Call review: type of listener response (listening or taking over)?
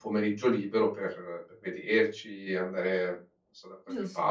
taking over